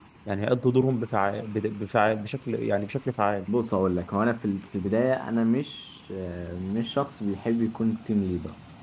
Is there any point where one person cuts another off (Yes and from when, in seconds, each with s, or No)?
No